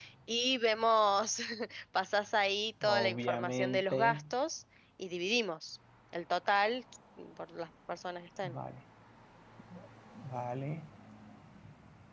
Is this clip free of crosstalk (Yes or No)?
No